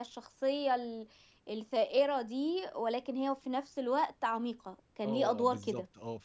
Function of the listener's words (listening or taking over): taking over